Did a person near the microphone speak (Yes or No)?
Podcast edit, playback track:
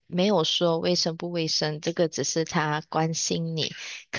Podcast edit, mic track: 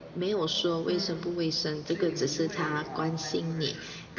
Yes